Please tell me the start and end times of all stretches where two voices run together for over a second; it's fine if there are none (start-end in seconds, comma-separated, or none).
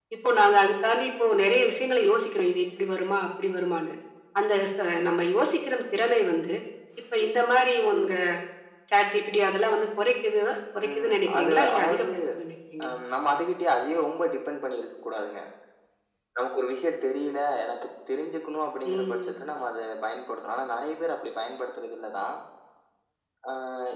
10.8-12.1